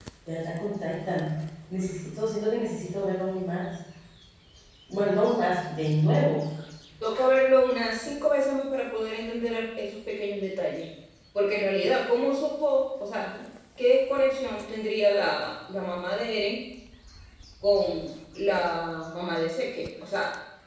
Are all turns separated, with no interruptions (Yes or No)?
Yes